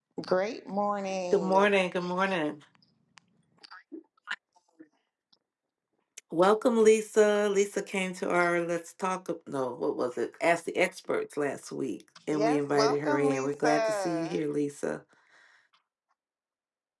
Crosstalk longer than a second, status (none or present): present